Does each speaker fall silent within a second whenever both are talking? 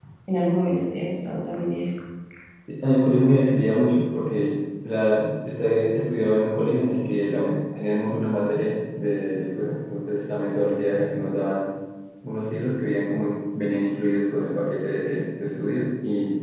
Yes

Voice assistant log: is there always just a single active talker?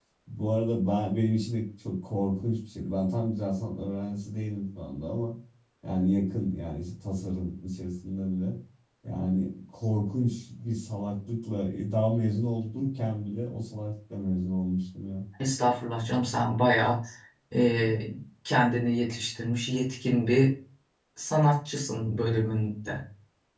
Yes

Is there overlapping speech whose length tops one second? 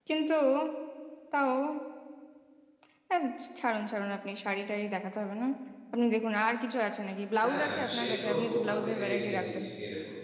Yes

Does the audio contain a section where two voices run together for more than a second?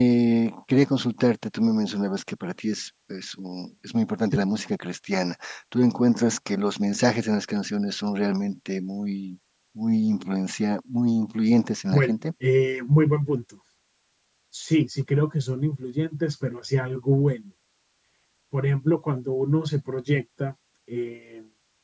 No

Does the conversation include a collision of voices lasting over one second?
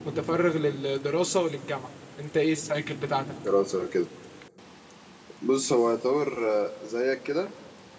No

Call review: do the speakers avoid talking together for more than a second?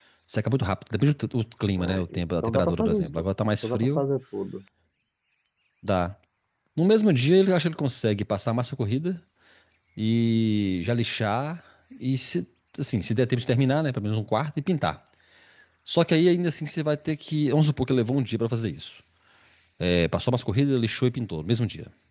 No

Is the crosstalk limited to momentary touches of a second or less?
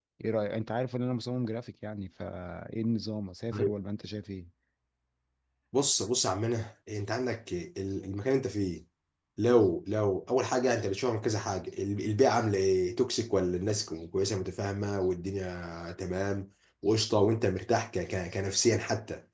Yes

